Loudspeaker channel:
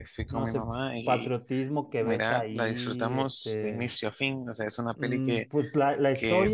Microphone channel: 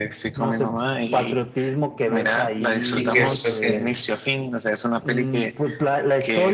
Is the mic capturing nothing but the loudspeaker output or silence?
No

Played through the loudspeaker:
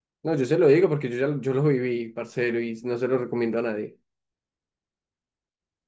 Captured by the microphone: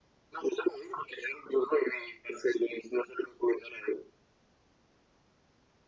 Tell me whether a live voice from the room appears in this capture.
No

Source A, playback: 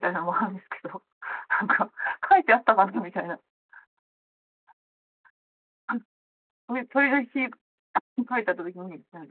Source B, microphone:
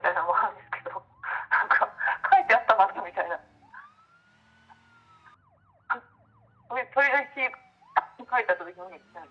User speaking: No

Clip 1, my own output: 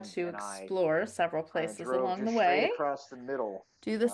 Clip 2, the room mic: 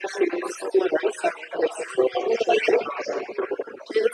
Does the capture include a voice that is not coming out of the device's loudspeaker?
No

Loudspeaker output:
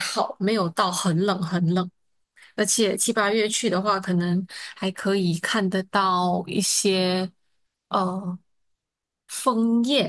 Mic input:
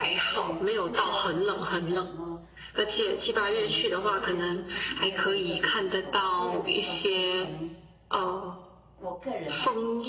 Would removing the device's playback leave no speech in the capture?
No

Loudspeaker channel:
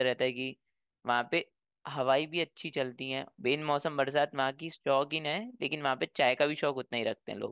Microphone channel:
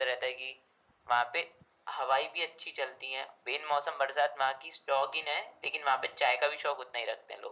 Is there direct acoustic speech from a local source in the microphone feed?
No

